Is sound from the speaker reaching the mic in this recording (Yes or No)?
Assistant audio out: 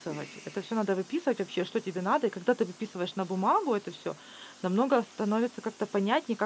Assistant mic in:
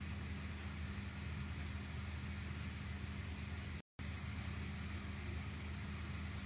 No